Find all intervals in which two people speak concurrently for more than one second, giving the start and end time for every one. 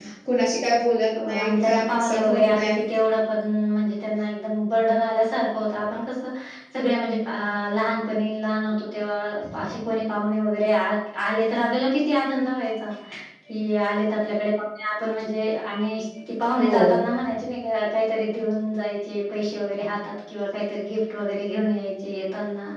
1.2-2.8

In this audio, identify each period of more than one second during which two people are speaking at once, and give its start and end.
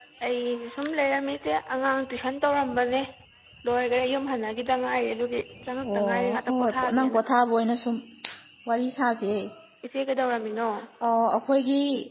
5.8-7.2

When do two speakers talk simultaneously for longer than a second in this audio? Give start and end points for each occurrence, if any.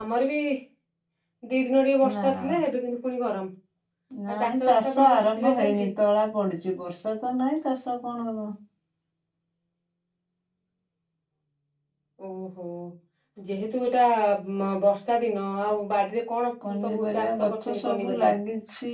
4.4-5.9, 16.8-18.3

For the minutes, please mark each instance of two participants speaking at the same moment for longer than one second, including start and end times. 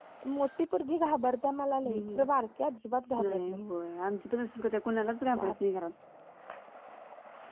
none

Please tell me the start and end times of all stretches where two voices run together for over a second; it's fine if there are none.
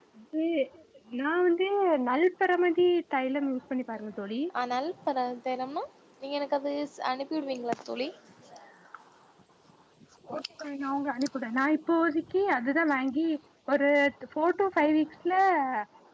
none

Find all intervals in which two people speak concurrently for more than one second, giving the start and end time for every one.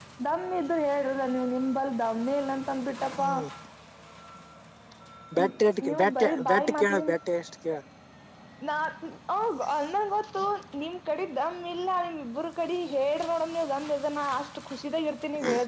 5.9-7.2

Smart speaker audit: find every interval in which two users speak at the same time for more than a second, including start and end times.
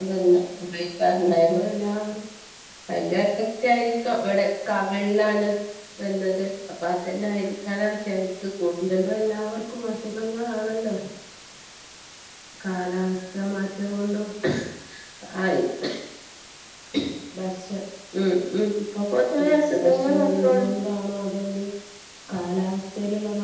19.4-20.7

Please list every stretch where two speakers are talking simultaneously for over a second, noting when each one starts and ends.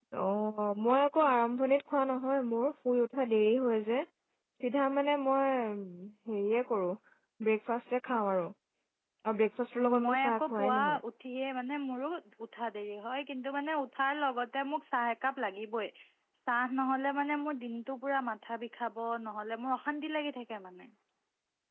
9.8-11.0

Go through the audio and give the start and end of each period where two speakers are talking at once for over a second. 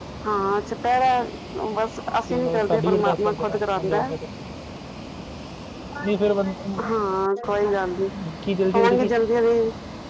2.3-4.1

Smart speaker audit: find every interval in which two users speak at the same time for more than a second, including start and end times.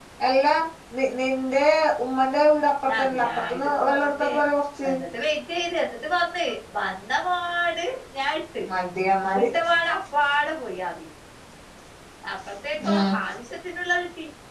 2.9-4.3

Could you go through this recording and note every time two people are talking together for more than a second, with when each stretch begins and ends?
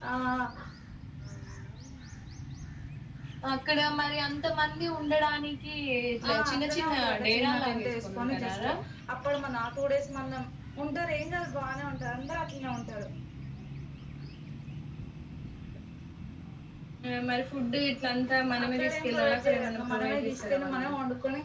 6.3-8.7, 18.6-20.9

